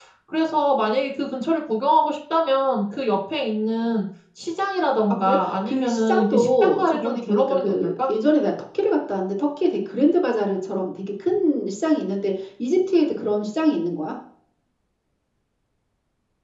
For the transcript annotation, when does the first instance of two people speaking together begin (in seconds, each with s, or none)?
5.1 s